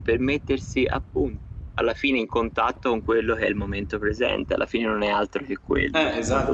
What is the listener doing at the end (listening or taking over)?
taking over